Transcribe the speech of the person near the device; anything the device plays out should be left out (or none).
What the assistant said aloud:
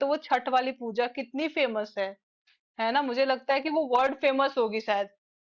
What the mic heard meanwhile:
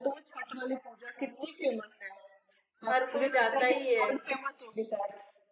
हर कोई जाता ही है